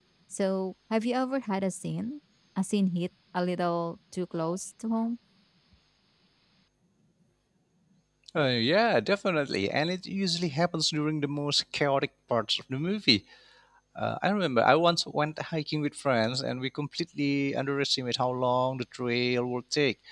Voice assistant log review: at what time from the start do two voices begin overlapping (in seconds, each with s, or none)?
none